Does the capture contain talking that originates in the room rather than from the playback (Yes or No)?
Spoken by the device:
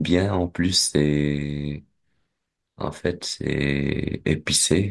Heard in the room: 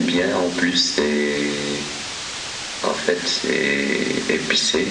No